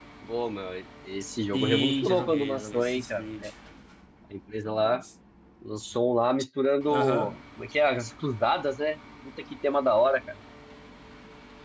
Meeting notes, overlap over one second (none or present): present